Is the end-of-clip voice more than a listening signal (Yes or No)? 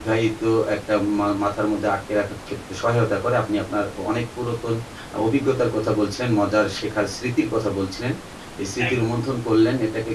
No